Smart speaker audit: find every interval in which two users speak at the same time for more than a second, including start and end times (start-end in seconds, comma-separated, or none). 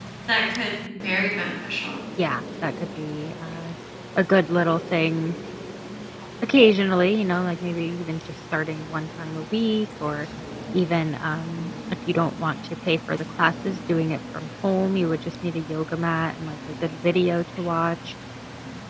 none